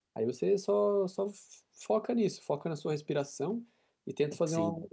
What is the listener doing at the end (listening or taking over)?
listening